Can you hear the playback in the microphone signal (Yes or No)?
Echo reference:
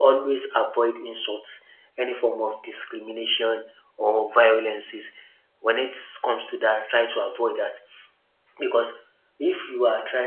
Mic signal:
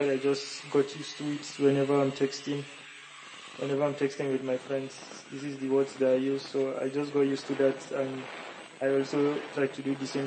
No